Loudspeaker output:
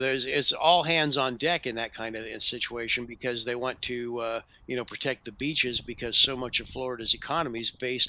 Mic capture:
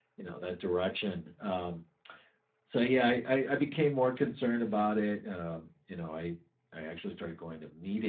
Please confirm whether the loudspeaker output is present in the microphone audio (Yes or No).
No